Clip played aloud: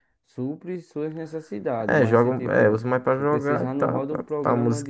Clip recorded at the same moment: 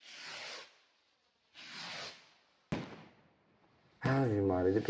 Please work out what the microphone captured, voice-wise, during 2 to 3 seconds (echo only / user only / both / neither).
neither